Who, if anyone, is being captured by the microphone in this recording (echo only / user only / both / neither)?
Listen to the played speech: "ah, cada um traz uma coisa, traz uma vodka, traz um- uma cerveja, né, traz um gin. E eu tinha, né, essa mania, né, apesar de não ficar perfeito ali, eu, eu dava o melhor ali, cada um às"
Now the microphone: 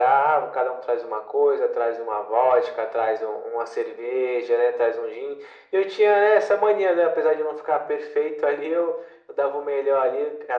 echo only